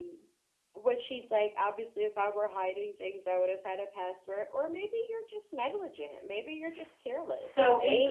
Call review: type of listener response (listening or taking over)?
taking over